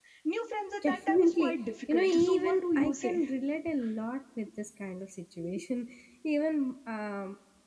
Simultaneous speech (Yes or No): Yes